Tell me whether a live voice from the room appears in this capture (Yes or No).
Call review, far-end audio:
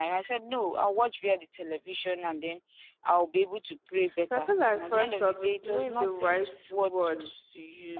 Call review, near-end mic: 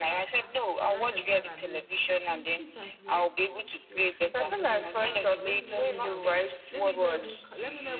Yes